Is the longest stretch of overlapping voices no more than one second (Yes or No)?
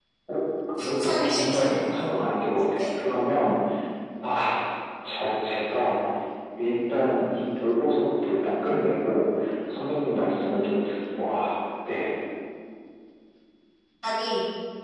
No